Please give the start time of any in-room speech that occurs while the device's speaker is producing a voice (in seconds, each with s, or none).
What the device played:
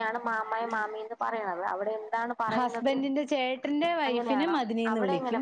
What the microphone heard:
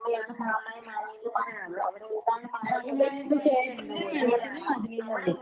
2.9 s